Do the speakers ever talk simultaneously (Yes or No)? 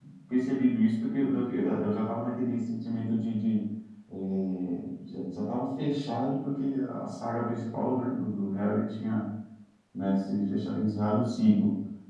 No